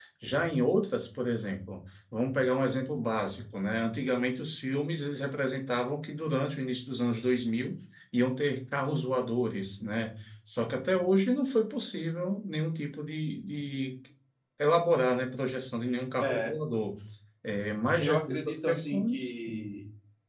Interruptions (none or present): present